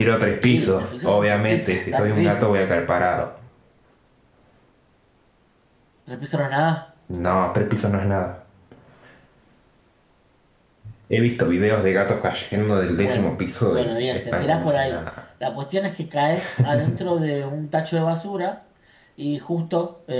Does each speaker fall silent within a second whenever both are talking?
No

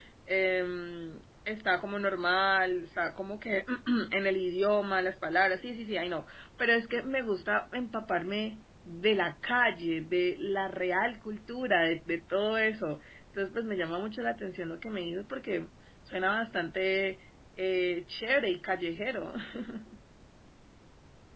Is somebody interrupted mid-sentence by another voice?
No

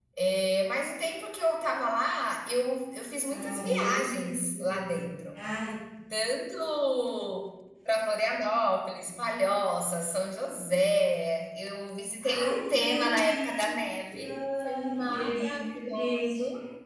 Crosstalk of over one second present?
Yes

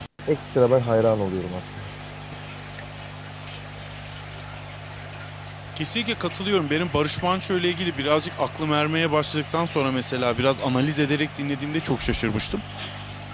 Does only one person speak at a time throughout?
Yes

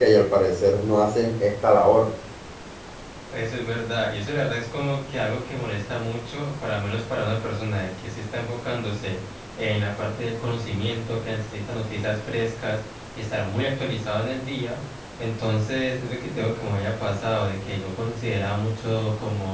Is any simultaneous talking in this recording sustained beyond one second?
No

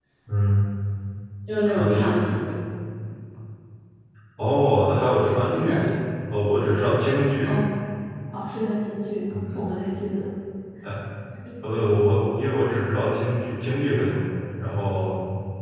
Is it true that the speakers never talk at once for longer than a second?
Yes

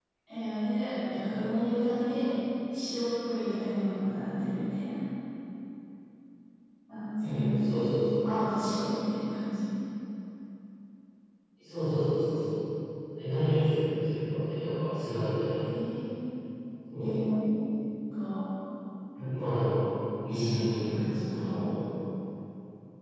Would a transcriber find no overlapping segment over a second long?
No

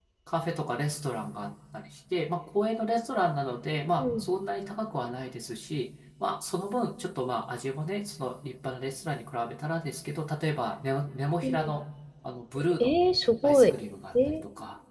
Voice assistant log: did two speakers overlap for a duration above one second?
No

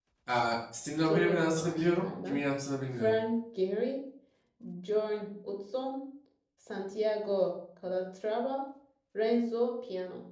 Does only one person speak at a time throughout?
No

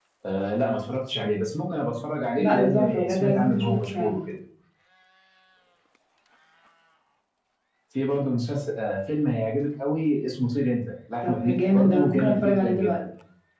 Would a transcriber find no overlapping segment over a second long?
No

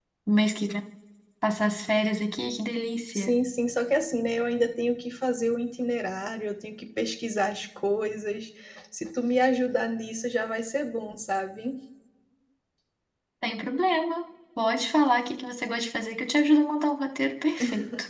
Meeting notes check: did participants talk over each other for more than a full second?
No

